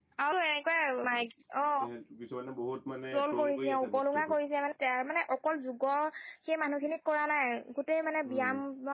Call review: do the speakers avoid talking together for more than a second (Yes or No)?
No